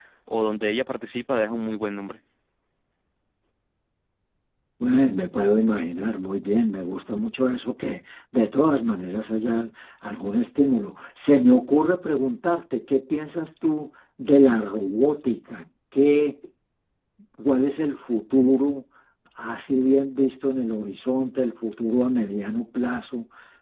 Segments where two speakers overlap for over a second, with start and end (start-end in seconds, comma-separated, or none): none